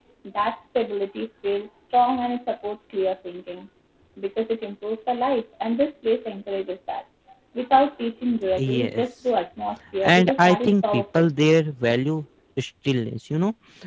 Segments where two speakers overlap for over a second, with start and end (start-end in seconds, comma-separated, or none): 10.1-11.3